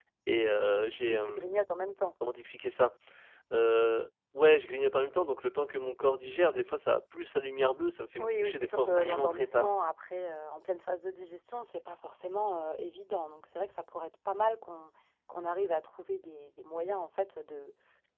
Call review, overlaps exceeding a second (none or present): present